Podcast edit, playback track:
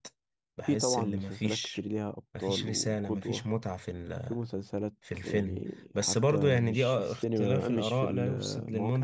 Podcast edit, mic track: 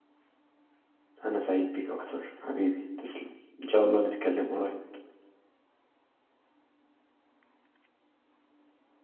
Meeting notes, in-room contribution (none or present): present